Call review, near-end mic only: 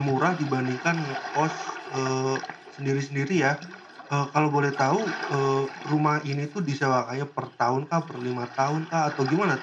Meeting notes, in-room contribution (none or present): none